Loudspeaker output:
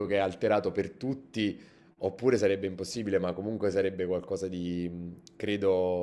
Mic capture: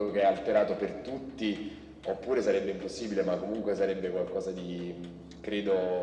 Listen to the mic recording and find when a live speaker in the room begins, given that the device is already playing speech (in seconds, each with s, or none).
none